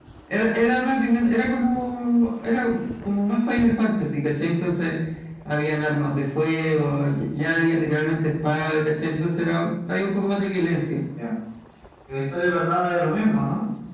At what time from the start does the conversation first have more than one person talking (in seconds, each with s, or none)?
none